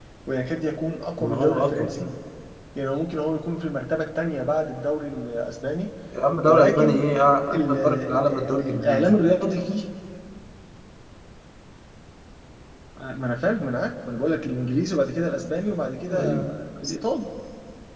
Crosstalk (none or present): present